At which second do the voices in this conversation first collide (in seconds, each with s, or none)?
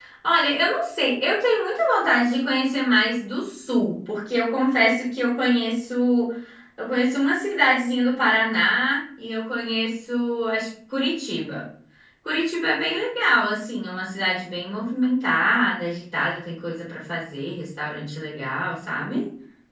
none